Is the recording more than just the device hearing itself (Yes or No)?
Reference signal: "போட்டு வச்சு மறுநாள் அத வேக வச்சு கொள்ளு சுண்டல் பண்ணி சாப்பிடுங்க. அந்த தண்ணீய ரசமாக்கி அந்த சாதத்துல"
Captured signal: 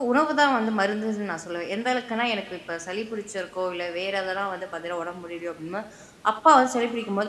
Yes